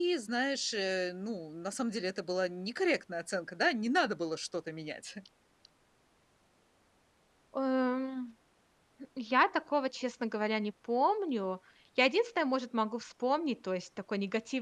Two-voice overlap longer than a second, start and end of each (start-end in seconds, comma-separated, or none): none